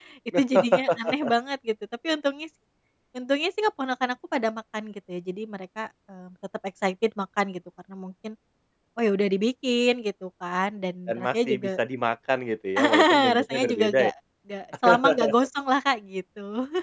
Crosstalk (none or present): present